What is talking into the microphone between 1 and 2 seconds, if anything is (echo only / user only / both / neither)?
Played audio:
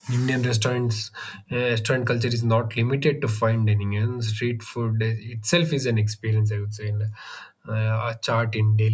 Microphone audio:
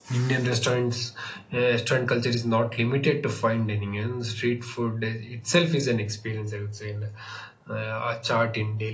echo only